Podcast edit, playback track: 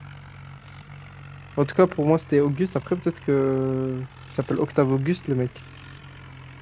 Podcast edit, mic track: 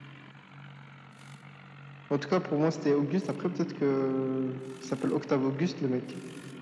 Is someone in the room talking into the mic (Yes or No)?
No